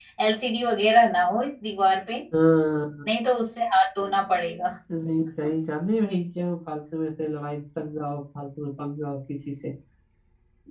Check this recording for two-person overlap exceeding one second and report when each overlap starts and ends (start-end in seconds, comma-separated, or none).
none